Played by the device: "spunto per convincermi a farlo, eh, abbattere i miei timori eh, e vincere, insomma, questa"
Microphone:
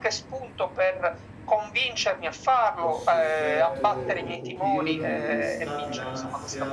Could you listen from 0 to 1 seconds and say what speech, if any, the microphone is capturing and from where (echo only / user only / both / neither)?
echo only